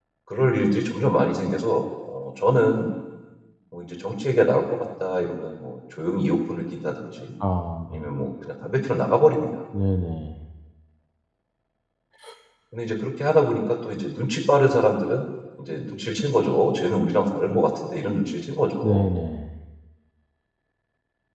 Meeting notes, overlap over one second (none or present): none